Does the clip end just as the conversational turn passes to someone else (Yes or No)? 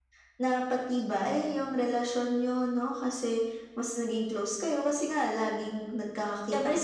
Yes